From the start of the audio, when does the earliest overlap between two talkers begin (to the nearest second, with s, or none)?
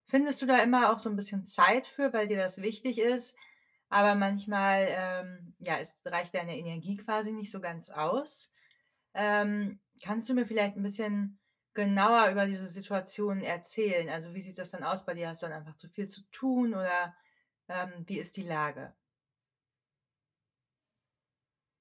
none